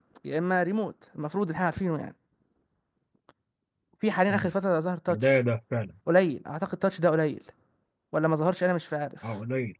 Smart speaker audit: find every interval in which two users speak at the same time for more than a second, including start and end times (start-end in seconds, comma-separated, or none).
none